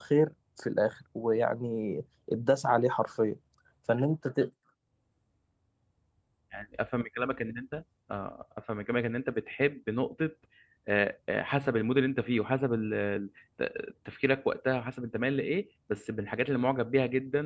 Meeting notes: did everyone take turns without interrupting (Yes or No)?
Yes